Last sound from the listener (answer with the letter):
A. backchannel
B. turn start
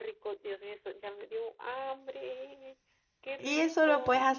B